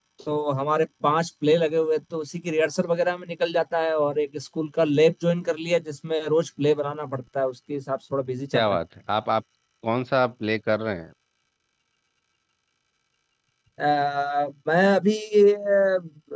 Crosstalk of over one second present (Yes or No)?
No